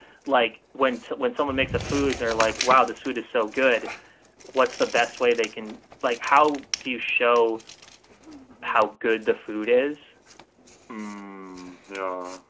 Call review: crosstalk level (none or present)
none